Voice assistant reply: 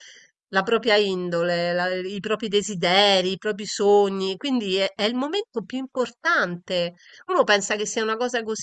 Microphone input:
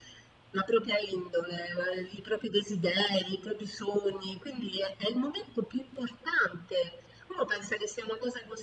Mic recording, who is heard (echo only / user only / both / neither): echo only